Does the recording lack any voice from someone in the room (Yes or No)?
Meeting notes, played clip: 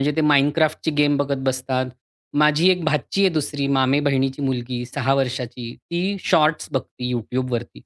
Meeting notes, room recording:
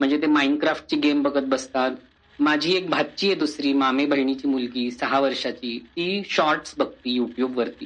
Yes